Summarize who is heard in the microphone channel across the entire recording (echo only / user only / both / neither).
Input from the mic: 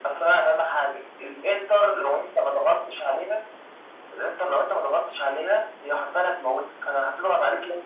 echo only